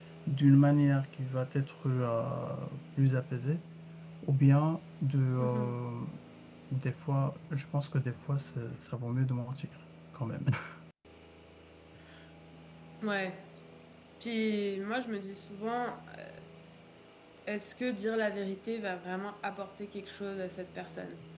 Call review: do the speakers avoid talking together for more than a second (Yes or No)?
Yes